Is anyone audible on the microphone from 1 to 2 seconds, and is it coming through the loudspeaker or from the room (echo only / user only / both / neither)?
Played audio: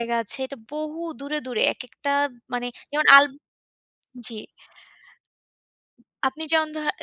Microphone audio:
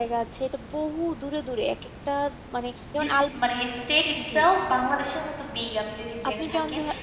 echo only